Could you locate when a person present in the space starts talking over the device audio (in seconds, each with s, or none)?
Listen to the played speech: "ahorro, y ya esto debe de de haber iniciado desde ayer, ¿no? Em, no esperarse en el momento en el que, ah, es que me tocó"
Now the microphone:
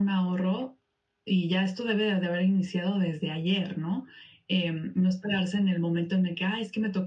none